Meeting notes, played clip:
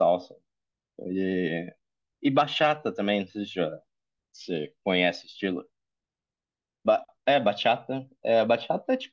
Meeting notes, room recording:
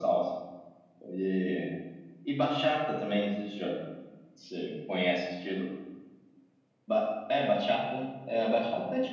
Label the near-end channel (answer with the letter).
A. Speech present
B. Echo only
B